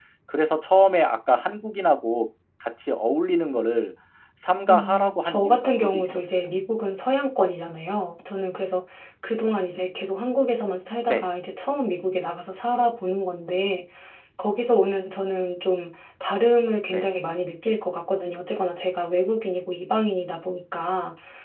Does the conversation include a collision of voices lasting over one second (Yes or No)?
Yes